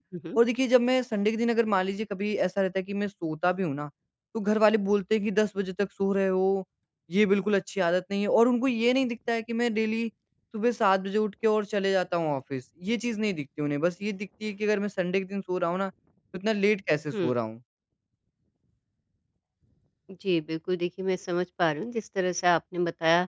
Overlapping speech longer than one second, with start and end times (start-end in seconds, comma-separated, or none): none